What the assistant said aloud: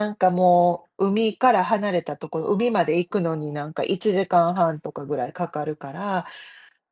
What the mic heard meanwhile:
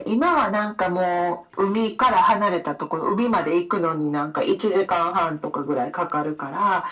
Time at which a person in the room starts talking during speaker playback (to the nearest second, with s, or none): none